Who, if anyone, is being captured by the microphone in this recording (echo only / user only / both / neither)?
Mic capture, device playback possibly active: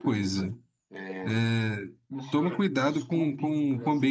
both